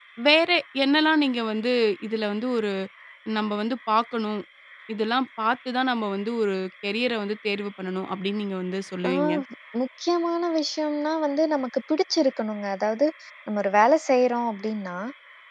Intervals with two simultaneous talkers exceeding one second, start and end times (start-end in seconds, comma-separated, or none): none